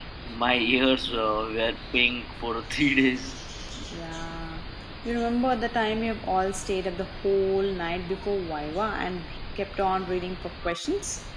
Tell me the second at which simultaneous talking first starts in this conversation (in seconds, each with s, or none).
none